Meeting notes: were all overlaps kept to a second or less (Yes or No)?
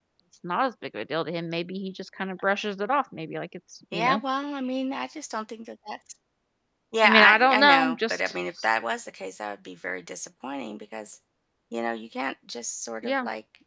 No